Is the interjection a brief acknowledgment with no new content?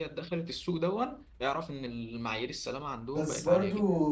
No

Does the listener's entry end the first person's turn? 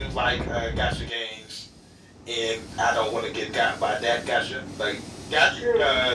No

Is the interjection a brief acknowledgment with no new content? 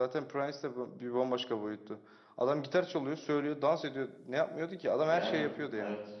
No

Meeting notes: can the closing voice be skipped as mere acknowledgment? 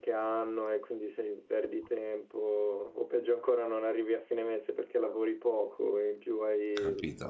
No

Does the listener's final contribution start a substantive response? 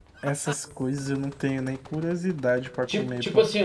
Yes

